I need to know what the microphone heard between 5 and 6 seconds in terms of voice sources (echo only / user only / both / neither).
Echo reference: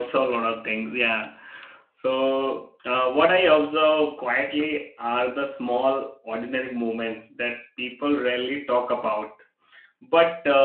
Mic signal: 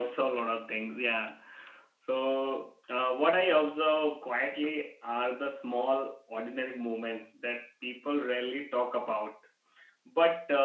echo only